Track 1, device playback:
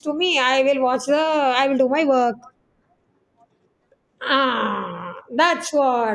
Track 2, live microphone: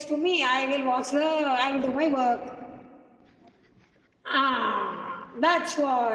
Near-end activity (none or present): none